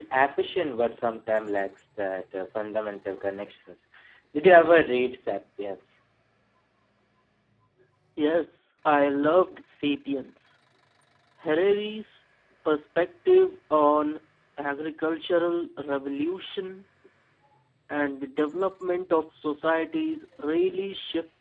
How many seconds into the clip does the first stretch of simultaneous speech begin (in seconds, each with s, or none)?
none